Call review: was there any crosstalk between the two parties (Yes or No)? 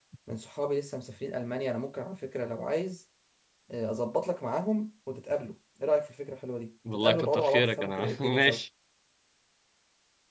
Yes